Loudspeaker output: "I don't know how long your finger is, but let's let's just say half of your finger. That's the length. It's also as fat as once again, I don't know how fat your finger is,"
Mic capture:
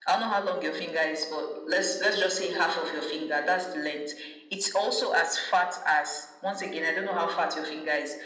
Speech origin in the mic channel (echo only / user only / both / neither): echo only